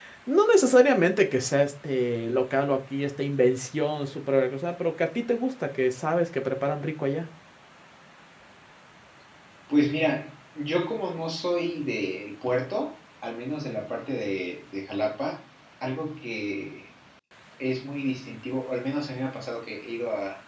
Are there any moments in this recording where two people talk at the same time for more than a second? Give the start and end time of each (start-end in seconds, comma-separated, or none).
none